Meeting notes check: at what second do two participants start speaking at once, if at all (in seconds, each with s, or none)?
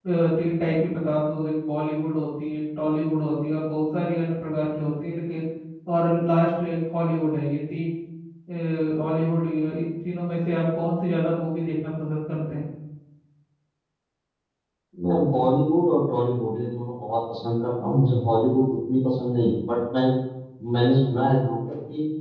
none